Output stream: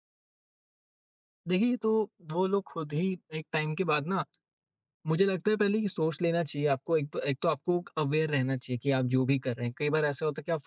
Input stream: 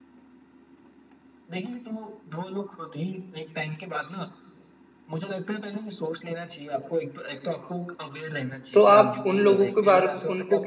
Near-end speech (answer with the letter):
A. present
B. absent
A